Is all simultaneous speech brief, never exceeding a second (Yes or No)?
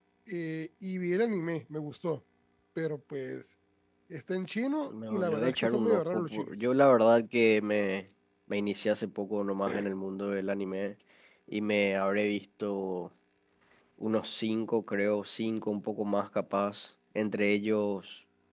No